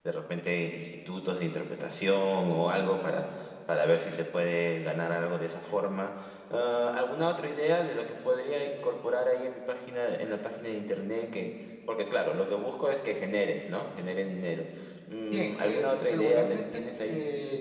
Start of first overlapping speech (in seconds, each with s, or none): 15.3 s